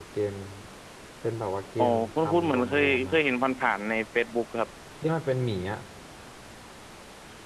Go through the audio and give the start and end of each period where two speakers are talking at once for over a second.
1.8-3.2

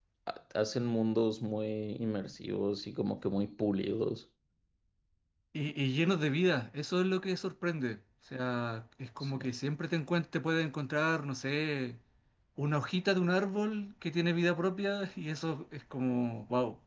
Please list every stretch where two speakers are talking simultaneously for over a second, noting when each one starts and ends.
none

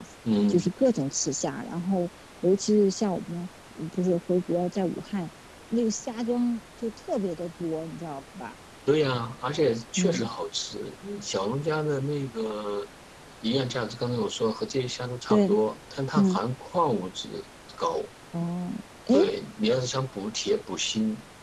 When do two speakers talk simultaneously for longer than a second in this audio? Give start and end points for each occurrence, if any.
none

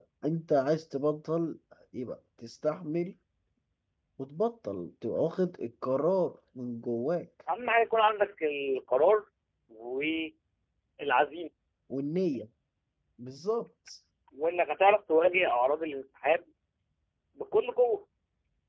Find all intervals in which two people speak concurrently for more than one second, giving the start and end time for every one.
none

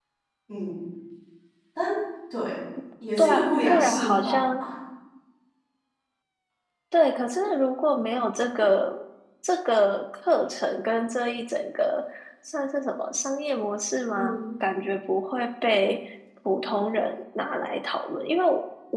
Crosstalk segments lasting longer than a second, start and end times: 3.2-4.5

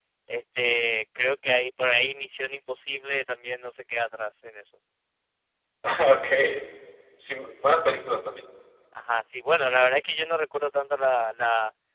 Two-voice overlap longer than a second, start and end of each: none

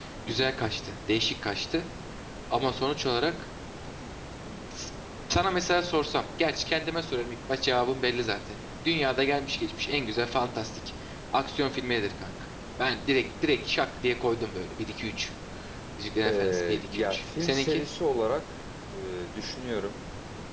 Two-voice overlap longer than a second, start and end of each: 16.3-17.8

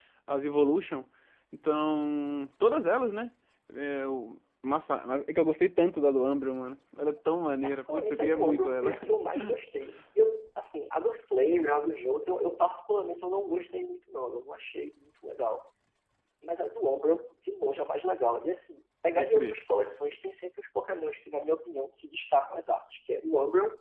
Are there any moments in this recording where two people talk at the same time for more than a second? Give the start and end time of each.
7.6-8.9

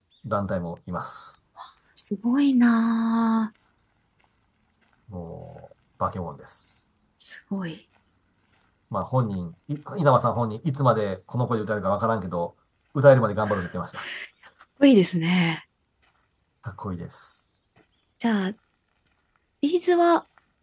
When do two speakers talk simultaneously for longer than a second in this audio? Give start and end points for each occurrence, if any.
none

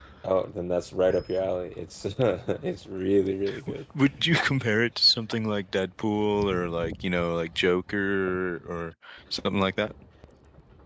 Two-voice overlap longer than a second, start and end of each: none

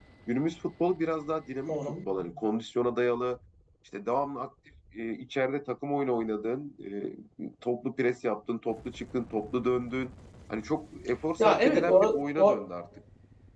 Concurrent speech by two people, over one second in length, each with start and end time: 11.4-12.6

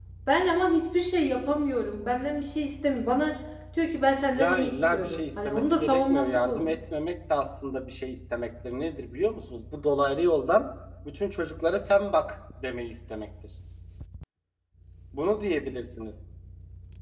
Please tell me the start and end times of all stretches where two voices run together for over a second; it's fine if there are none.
4.3-6.6

